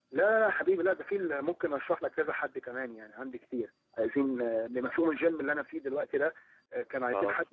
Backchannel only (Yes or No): Yes